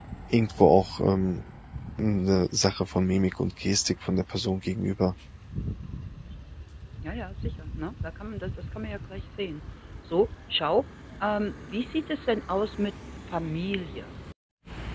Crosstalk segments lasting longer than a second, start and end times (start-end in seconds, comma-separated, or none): none